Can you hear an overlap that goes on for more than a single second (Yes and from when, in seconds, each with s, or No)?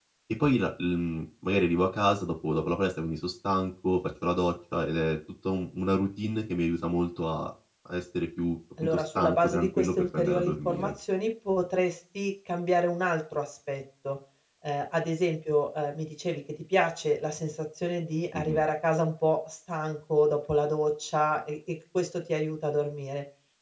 Yes, from 8.8 s